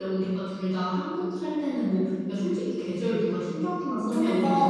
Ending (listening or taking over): taking over